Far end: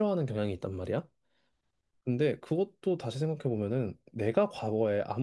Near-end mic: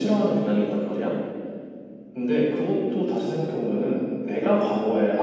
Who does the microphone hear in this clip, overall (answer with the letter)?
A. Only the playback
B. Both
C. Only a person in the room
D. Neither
A